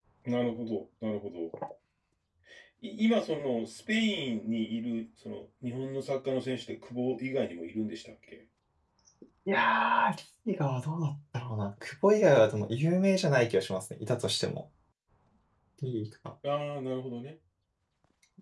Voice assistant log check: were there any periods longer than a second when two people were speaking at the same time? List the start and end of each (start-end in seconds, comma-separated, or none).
none